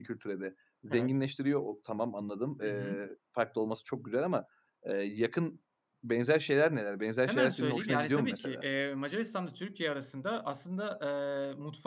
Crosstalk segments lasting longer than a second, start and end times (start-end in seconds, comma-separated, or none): 7.3-8.6